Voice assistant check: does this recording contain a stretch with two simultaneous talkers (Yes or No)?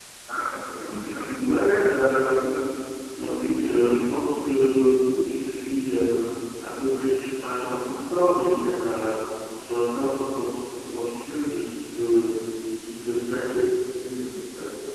Yes